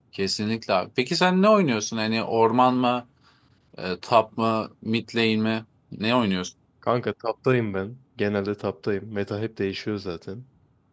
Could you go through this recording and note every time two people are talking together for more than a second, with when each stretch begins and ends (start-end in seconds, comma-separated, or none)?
none